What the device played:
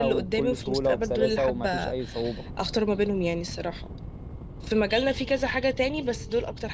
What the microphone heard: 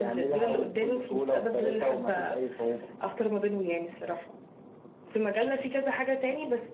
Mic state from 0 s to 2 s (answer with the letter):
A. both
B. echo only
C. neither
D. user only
B